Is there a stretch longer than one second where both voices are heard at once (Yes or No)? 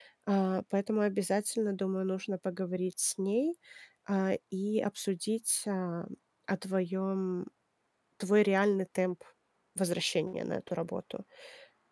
No